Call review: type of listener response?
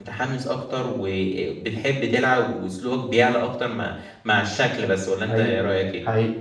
taking over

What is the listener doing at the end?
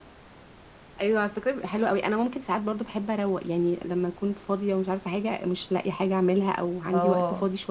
listening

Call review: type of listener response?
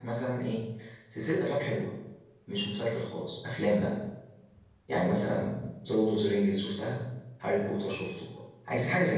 taking over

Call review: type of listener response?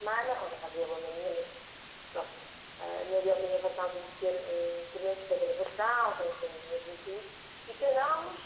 listening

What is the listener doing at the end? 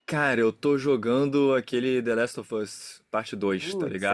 taking over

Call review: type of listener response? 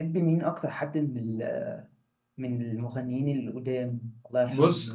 taking over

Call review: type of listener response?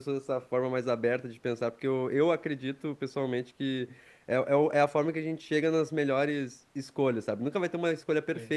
listening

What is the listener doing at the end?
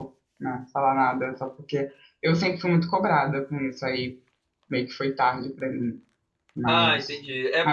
taking over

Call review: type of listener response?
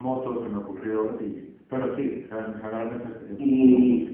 taking over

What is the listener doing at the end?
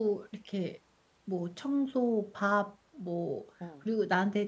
listening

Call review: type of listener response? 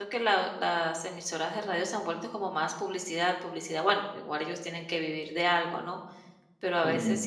listening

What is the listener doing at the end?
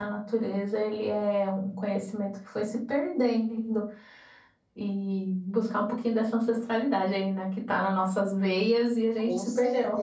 taking over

